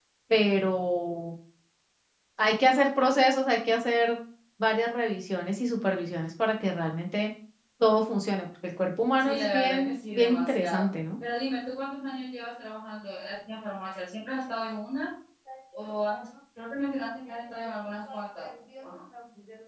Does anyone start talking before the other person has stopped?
Yes, from 9.2 s

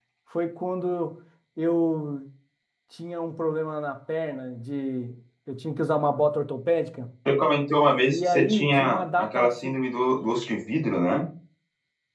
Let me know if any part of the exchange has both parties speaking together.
Yes, from 8.1 s

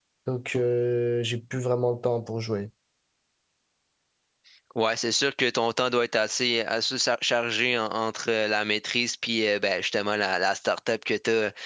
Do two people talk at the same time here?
No

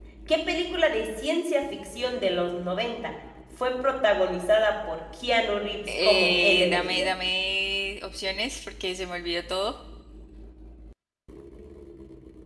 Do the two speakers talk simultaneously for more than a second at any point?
Yes, from 5.9 s

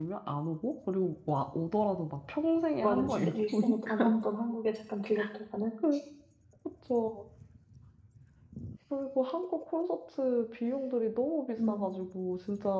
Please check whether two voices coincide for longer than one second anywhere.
Yes, from 2.8 s

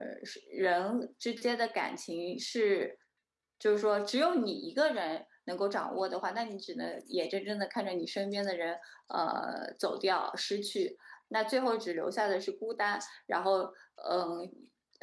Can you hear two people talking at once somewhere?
No

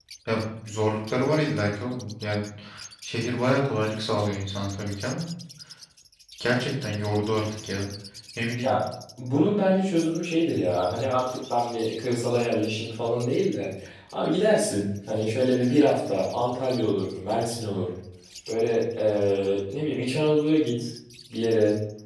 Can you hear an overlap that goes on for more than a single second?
No

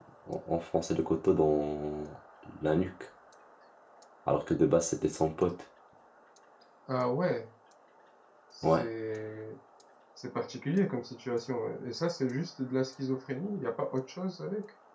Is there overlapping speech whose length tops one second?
No

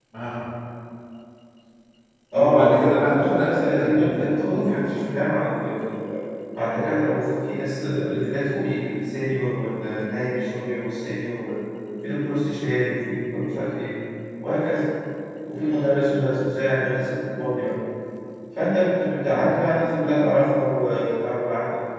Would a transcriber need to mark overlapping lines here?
Yes, from 2.4 s

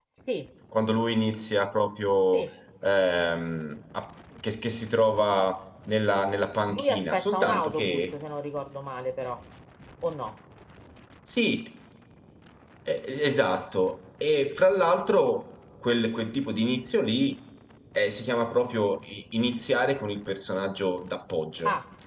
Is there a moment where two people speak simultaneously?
Yes, from 6.7 s

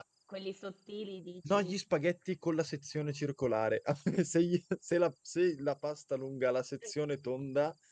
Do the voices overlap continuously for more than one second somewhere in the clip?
No

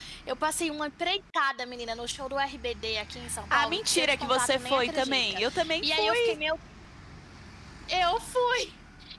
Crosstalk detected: Yes, from 3.5 s

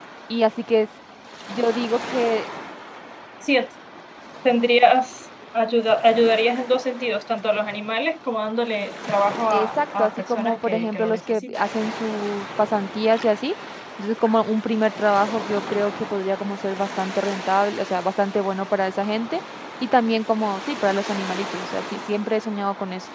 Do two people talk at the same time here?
Yes, from 9.5 s

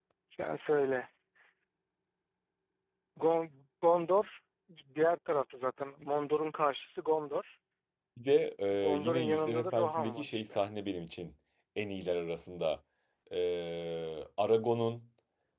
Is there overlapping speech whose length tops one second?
Yes, from 8.7 s

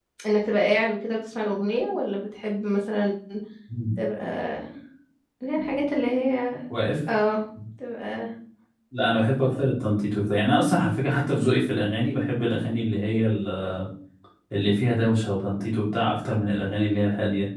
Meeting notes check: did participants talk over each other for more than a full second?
No

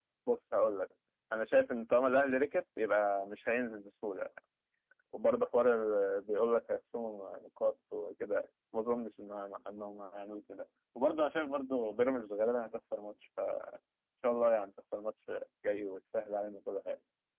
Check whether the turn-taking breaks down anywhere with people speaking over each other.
No

